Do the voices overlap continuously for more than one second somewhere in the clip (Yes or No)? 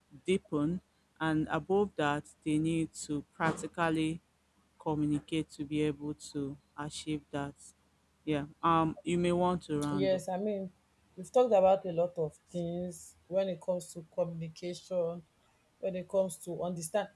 No